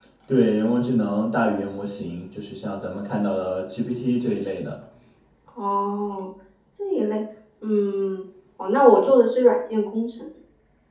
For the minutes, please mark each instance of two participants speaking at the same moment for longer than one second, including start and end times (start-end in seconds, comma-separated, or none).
none